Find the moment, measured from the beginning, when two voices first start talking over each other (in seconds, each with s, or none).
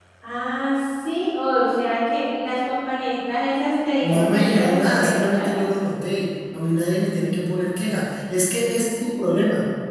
4.0 s